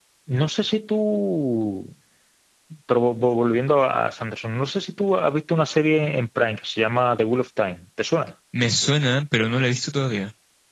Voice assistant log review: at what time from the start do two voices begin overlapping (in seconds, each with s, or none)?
none